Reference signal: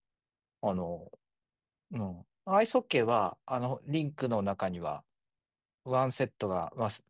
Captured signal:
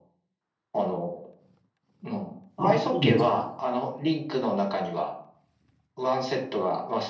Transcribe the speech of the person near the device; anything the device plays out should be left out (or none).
あ、そうなんですね。